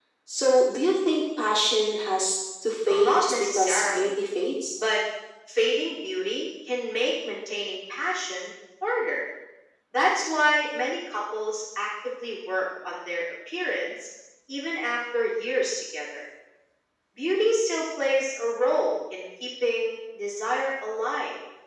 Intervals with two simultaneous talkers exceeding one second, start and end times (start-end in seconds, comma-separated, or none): 2.9-4.1